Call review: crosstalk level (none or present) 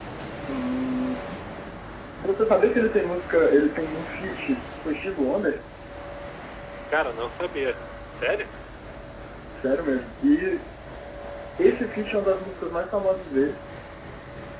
none